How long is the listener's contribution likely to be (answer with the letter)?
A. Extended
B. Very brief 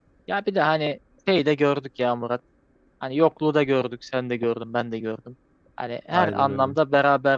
B